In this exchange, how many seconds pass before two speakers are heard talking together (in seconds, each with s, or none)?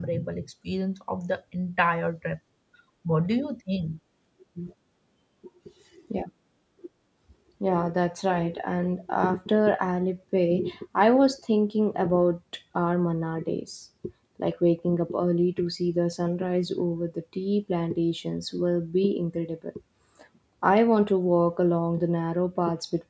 none